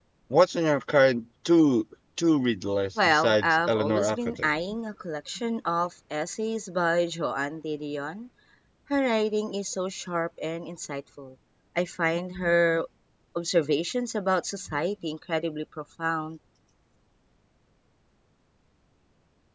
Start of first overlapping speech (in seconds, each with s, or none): 3.0 s